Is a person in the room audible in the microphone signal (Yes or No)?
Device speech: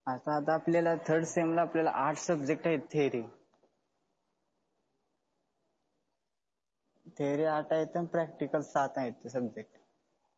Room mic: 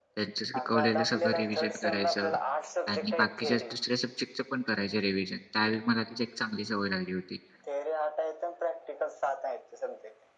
Yes